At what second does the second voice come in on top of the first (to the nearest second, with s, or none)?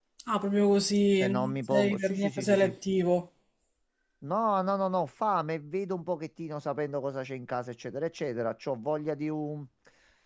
1 s